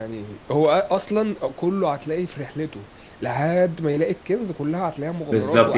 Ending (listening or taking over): taking over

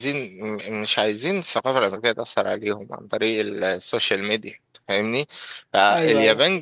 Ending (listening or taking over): listening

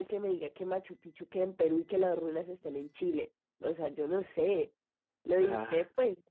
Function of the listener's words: listening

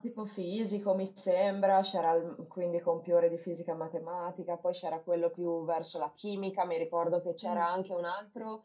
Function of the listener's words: listening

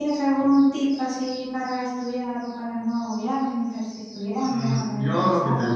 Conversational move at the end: taking over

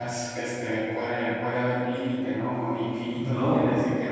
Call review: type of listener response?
listening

